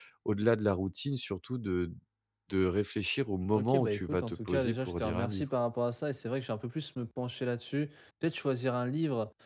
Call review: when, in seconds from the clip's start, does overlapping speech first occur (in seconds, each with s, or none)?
3.5 s